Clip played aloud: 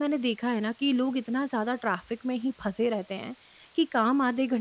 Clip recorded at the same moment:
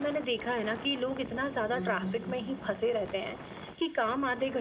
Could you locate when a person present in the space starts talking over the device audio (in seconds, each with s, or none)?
1.7 s